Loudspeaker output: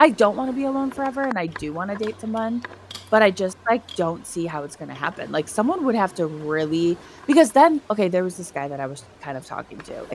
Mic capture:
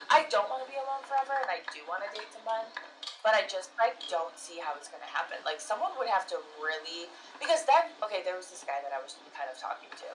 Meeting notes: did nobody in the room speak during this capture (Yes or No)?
Yes